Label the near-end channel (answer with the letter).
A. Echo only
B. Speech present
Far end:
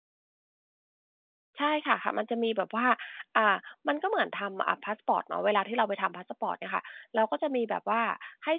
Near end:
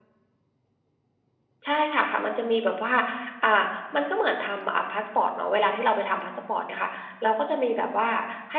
A